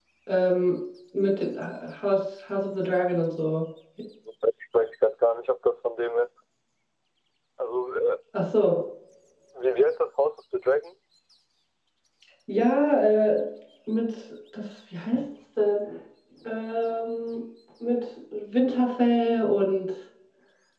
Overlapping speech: No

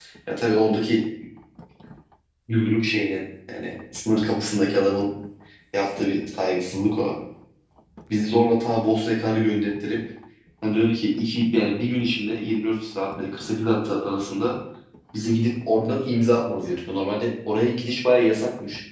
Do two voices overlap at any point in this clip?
No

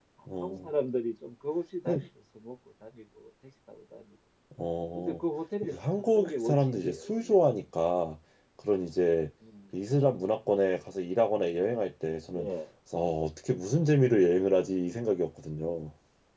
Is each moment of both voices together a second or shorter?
No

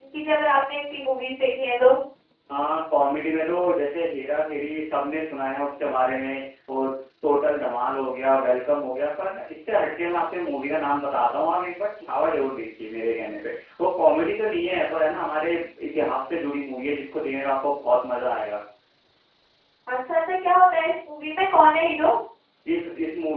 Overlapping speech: No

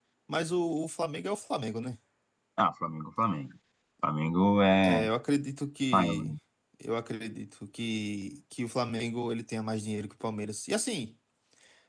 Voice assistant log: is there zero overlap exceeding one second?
Yes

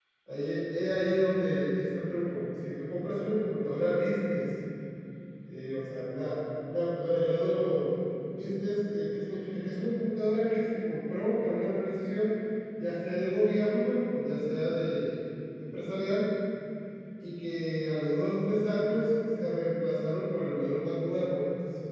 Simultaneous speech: No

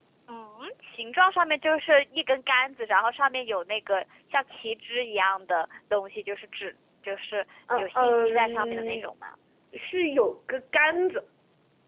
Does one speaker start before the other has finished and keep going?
Yes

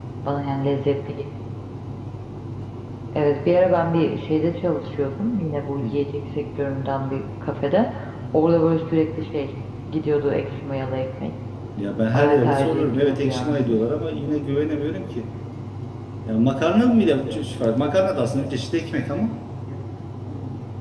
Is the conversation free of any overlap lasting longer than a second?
No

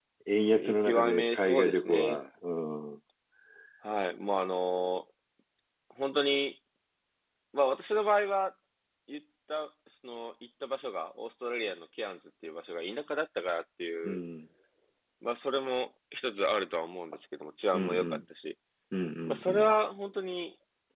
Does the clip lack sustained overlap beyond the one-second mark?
No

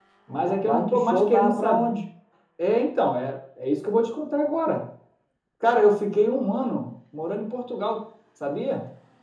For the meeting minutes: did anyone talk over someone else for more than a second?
Yes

